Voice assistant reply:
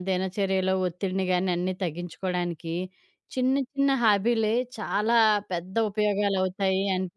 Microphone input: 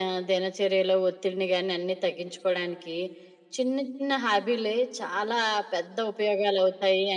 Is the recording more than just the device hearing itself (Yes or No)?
No